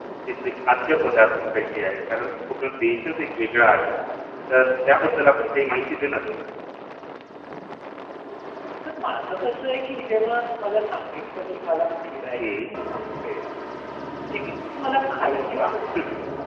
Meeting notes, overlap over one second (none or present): none